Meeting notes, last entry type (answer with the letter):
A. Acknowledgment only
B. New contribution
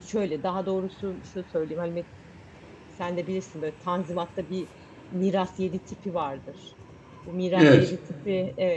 A